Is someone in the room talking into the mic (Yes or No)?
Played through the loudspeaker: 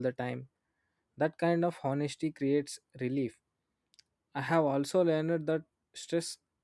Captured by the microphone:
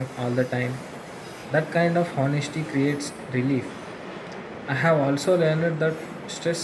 No